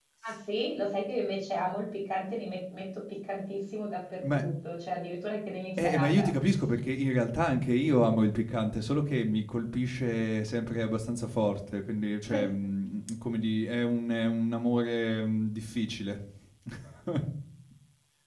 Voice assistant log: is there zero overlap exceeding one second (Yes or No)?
Yes